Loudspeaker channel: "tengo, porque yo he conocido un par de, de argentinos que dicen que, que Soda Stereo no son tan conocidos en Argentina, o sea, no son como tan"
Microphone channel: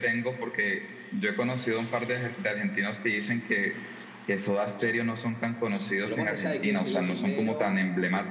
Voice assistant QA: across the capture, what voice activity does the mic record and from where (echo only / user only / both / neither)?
both